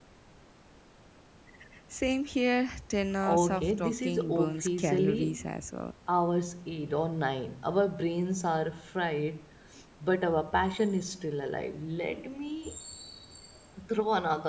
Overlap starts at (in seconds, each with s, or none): 3.2 s